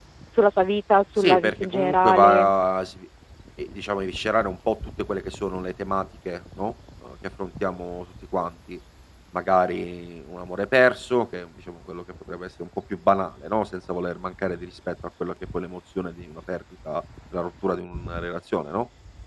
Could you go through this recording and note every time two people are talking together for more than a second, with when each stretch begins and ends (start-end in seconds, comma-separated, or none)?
1.2-2.5